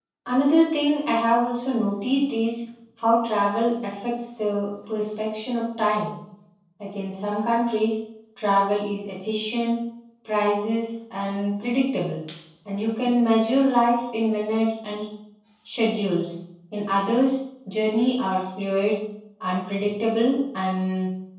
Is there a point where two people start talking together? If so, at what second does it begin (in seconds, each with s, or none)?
none